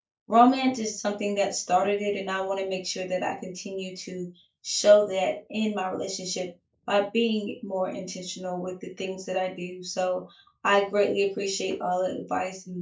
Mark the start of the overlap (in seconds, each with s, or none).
none